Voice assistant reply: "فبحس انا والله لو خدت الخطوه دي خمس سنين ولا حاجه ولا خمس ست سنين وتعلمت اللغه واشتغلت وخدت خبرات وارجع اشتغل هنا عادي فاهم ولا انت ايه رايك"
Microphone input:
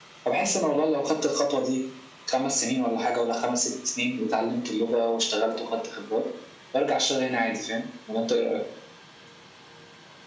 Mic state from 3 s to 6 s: echo only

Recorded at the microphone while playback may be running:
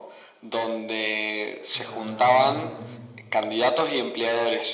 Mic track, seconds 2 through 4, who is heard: both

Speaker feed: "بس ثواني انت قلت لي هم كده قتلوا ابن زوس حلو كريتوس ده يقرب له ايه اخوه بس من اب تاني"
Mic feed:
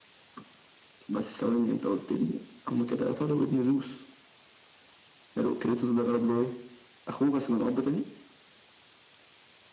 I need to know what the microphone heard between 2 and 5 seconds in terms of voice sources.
echo only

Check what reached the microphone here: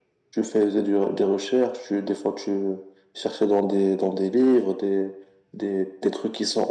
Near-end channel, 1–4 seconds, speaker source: echo only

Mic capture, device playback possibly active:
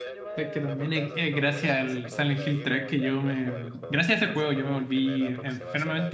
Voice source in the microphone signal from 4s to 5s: both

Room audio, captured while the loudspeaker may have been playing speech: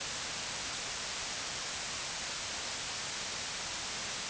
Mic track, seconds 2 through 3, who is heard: neither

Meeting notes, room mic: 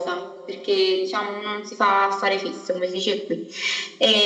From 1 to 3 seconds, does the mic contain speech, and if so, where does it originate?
echo only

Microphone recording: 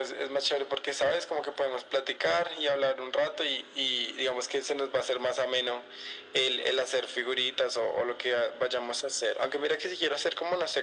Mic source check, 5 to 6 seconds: echo only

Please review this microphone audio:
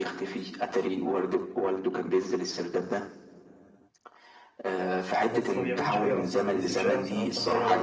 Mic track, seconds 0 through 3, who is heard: echo only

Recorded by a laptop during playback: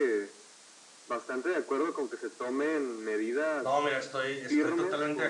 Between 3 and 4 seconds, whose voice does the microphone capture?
both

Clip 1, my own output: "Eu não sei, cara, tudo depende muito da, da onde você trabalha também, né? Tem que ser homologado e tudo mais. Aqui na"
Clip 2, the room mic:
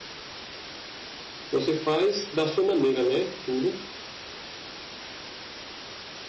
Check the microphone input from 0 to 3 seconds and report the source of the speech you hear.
user only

